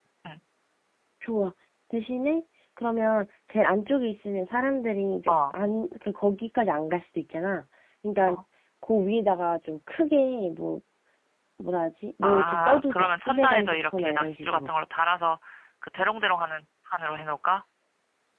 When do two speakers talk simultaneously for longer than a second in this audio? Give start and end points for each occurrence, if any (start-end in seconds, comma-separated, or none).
12.2-14.7